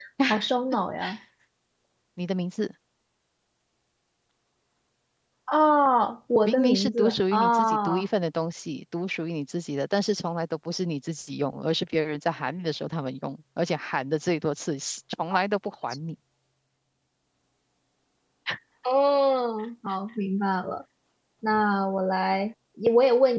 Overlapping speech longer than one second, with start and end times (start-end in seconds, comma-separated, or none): 6.4-8.1